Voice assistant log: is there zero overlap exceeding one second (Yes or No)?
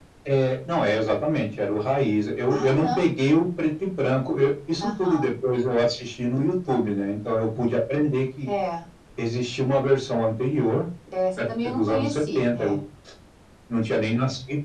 No